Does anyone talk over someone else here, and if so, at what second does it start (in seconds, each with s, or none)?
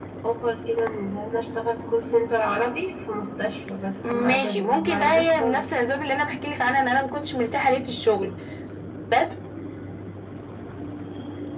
4.0 s